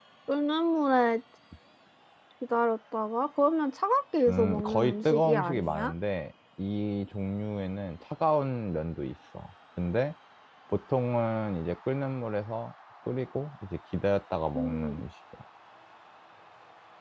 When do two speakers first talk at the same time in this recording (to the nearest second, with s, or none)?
4 s